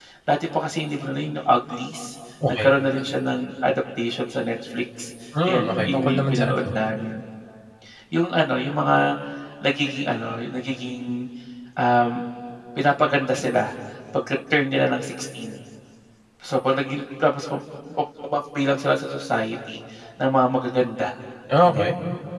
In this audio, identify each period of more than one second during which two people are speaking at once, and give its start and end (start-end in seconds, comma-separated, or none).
5.4-6.7